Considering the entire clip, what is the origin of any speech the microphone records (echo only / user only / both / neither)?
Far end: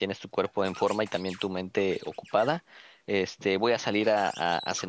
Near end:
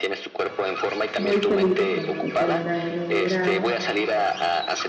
both